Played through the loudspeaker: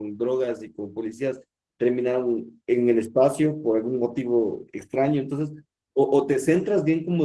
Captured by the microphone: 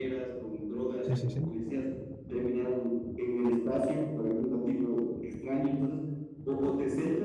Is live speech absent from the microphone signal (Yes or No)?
No